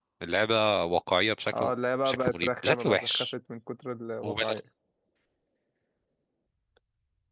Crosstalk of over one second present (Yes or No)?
Yes